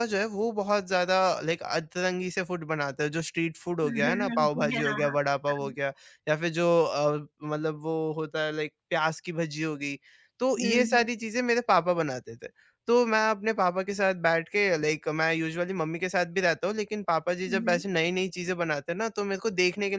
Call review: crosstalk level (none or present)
present